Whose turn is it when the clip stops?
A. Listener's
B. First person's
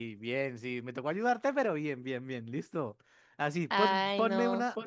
B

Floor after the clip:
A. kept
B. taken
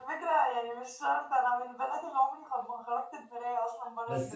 B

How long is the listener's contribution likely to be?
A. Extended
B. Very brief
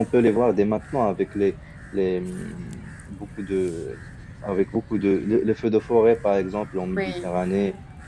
B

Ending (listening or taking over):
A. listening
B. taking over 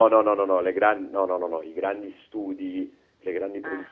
A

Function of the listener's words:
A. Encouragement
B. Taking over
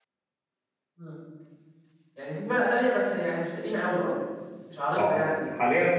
B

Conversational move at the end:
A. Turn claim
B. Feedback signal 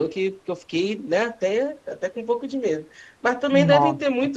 B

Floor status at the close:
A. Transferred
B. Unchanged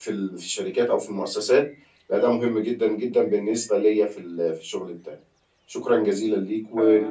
A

